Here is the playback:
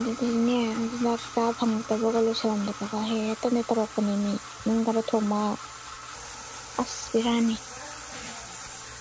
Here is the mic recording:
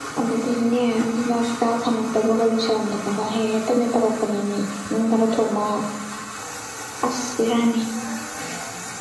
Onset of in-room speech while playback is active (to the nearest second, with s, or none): none